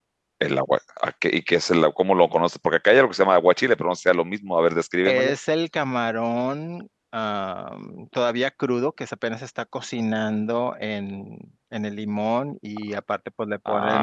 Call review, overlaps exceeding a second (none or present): none